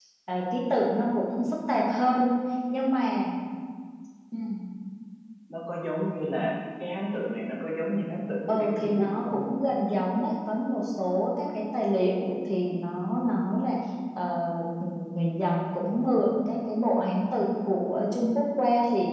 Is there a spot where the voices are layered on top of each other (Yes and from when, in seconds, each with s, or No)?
Yes, from 8.5 s